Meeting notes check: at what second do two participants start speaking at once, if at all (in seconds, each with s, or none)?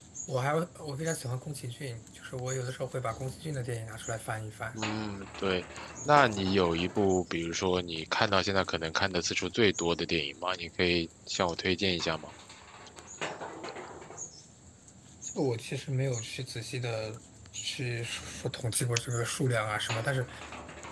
none